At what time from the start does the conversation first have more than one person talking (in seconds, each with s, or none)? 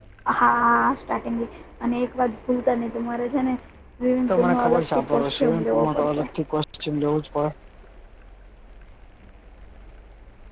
4.3 s